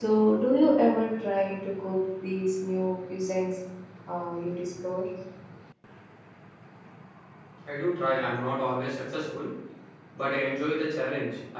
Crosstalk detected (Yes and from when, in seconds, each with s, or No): No